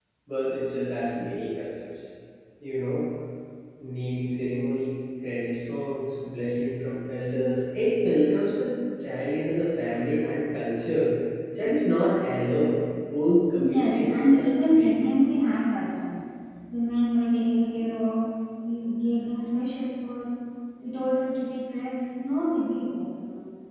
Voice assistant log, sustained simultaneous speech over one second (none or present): present